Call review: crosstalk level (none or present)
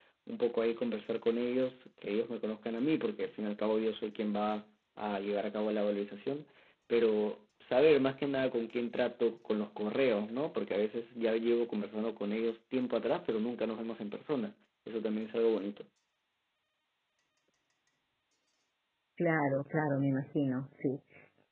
none